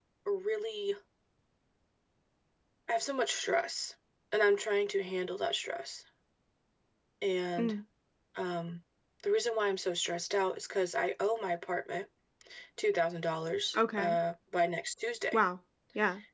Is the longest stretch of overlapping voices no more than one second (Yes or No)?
Yes